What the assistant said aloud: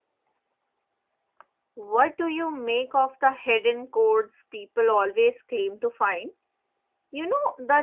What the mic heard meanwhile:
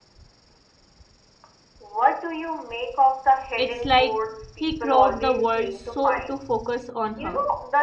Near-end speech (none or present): present